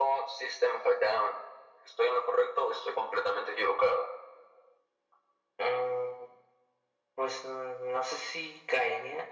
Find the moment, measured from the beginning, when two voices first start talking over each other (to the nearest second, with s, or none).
none